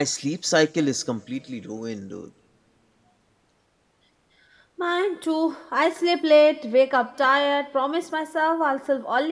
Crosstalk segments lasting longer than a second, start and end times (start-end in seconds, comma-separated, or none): none